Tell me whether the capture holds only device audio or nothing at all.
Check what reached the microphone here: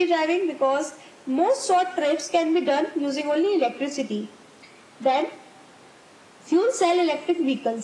Yes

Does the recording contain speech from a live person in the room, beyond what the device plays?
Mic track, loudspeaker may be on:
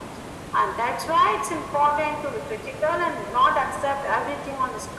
No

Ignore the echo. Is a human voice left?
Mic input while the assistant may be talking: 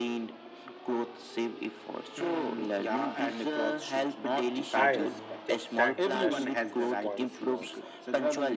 Yes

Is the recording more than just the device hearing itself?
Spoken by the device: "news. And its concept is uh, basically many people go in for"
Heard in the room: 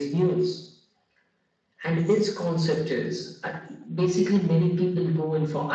No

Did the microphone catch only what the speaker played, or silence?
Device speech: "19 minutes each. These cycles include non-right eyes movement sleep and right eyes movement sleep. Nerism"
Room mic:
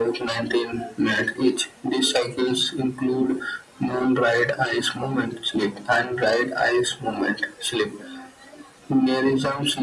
Yes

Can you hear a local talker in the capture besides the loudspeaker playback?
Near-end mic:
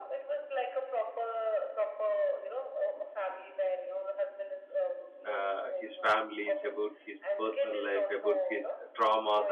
Yes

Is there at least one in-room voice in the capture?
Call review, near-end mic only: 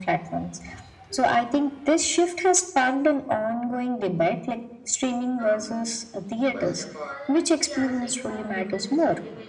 Yes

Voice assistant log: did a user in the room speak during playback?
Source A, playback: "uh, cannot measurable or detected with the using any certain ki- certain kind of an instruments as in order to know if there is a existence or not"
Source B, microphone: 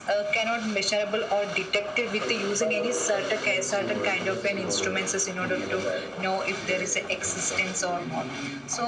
Yes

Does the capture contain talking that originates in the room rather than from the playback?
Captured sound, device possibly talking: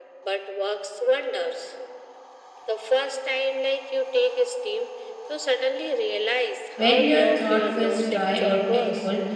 Yes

